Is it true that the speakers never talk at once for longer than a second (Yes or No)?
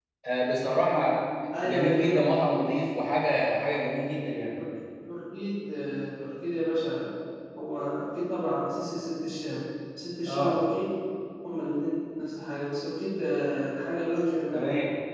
Yes